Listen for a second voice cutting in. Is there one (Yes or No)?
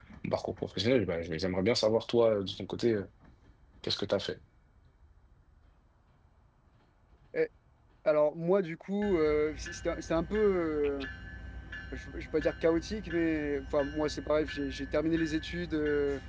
No